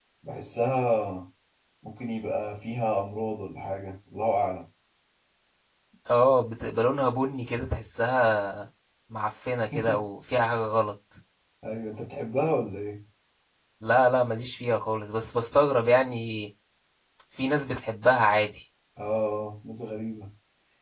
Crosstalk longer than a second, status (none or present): none